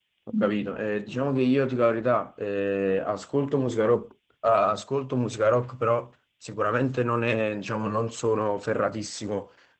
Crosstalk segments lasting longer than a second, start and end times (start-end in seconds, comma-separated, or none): none